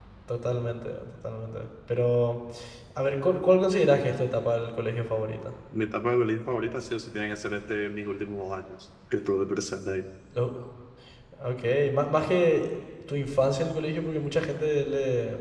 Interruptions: none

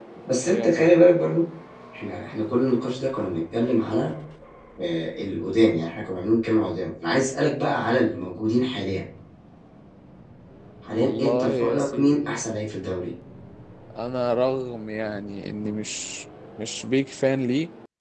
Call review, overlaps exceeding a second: present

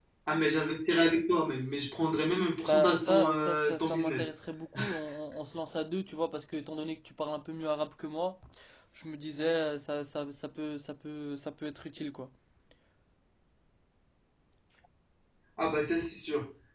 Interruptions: present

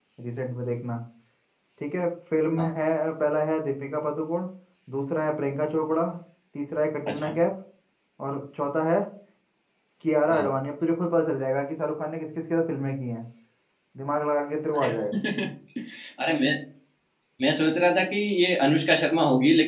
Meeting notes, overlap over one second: none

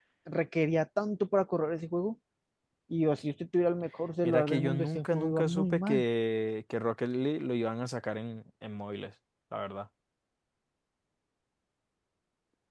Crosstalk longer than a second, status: present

